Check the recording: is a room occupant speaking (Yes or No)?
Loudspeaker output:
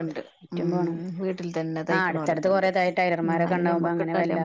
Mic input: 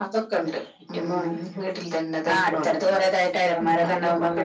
No